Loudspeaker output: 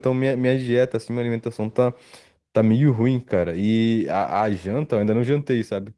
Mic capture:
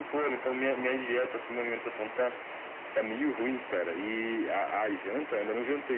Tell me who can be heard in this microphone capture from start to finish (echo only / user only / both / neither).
echo only